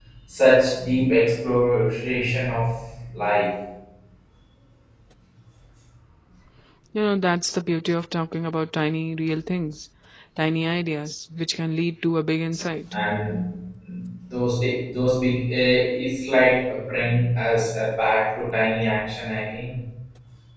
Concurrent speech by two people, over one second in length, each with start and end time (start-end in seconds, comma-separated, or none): none